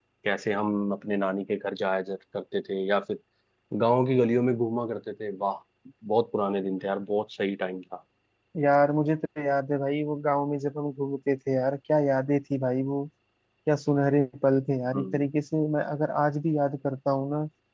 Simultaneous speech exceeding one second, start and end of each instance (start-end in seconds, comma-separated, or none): none